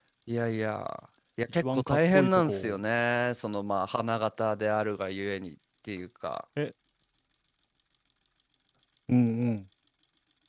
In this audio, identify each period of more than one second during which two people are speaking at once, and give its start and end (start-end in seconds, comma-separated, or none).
1.5-2.8